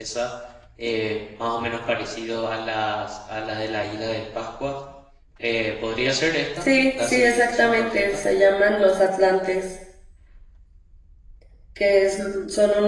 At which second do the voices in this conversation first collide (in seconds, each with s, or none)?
6.6 s